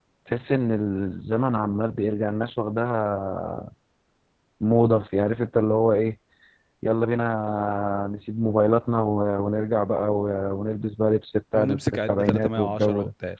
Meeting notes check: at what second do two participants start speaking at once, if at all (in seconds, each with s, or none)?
11.5 s